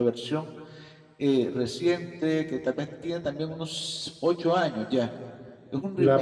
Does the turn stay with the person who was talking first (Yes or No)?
No